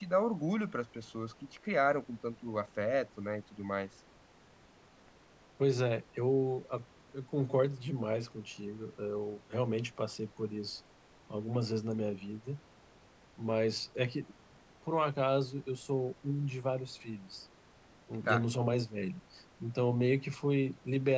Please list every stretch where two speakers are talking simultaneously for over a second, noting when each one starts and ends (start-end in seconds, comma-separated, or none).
none